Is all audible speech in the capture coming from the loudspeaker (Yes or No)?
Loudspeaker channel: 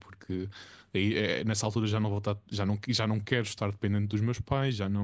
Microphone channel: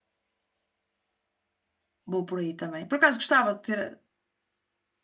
No